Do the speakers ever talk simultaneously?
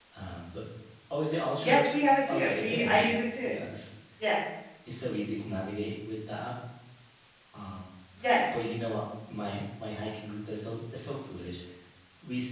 Yes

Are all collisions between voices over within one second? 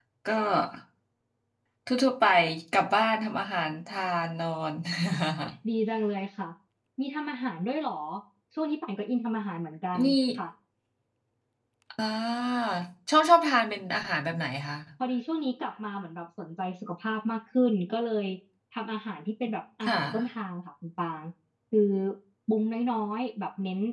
Yes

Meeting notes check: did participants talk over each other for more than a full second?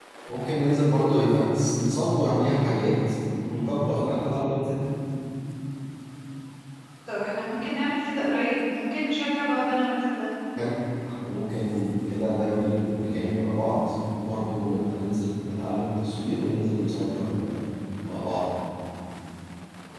No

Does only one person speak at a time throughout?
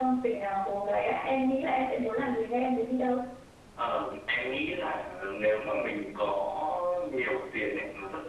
Yes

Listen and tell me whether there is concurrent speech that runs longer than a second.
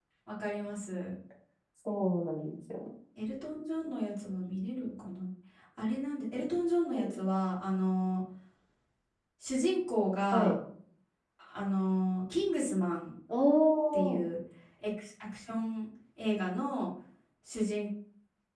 No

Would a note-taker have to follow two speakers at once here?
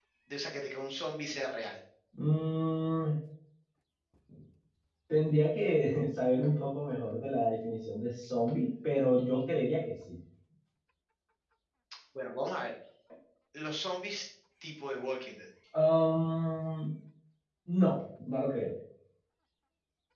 No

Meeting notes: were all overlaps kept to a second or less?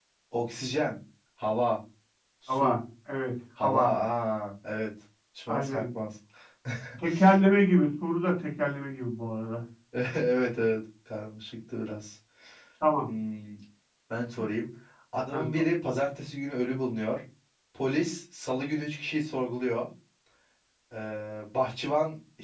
Yes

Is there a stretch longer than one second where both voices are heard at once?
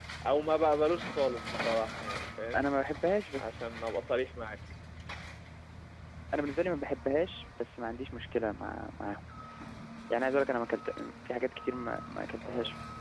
No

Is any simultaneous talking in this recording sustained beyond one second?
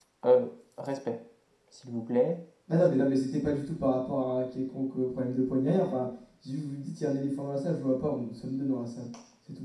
No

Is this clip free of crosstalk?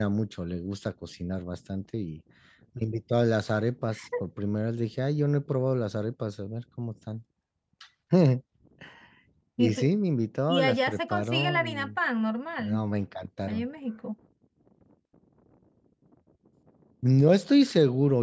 No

